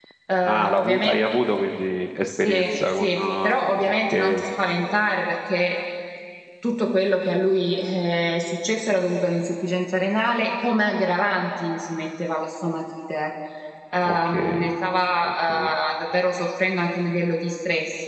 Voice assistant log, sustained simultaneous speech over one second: present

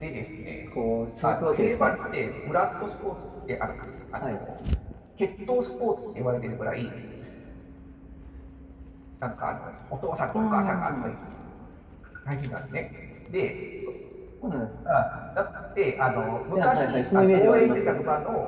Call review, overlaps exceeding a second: present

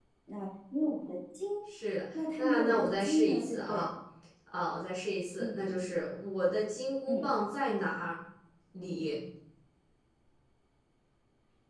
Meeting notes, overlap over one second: present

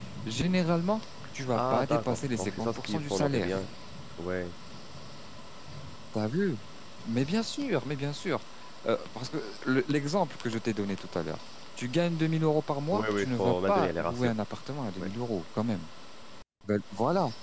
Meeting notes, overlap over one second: present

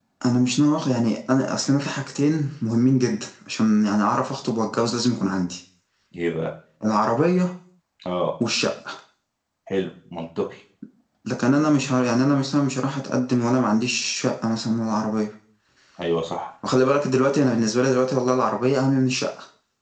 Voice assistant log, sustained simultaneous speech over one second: none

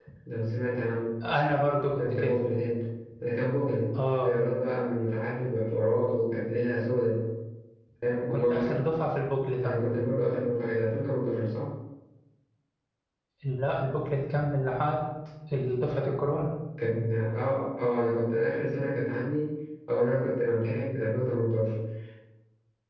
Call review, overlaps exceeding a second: none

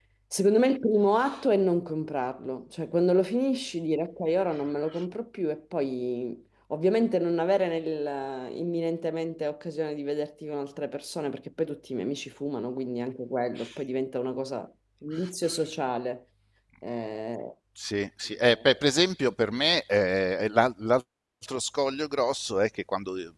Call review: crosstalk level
none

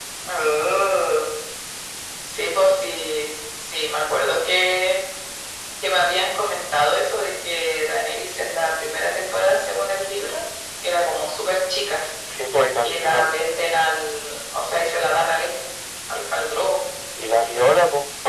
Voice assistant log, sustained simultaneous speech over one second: none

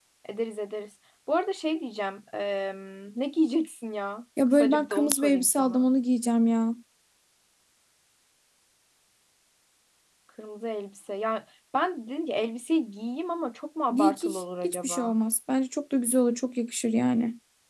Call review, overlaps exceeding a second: present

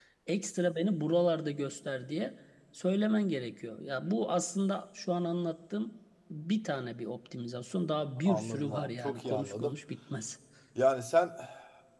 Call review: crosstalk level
present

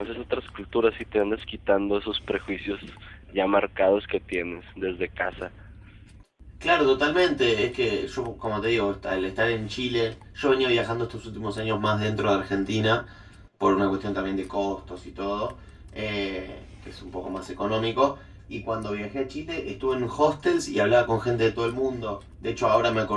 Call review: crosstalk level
none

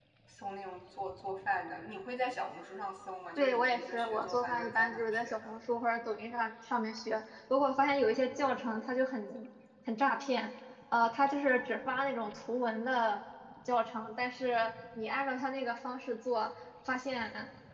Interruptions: present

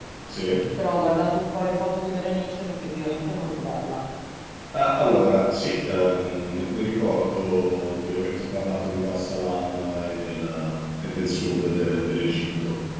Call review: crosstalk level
none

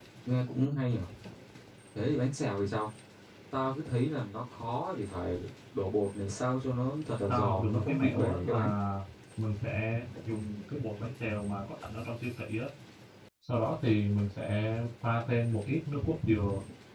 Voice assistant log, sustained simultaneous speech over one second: present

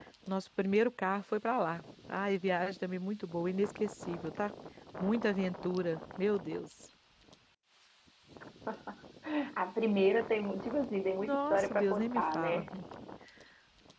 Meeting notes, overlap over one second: present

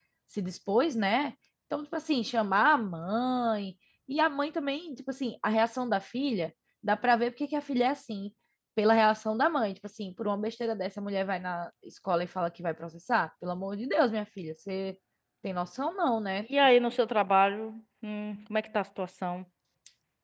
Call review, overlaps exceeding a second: none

